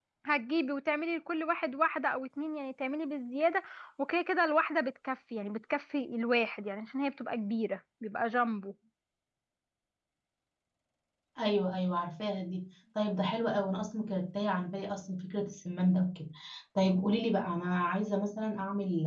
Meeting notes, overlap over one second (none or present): none